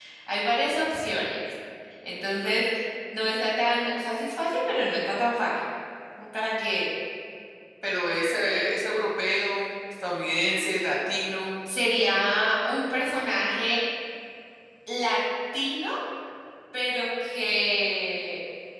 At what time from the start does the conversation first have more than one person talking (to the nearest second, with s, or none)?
none